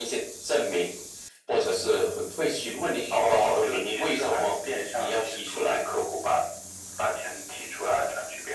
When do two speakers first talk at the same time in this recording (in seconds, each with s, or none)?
3.2 s